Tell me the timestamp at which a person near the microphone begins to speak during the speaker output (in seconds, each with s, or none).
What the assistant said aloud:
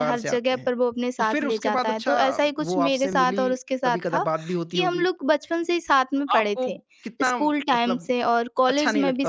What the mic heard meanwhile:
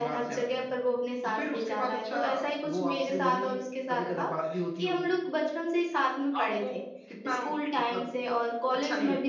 none